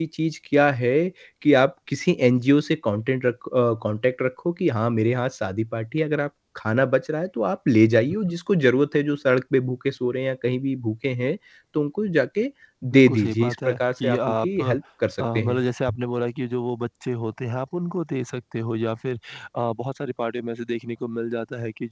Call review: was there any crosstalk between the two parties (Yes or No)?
Yes